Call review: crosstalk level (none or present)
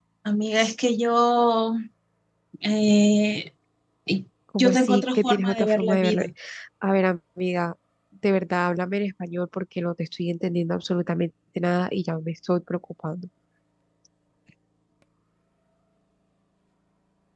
present